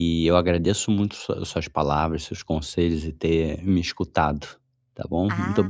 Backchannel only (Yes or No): No